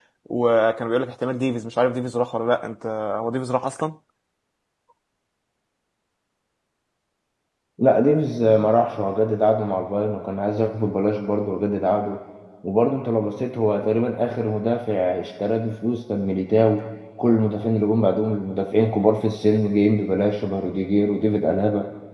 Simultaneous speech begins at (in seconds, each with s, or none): none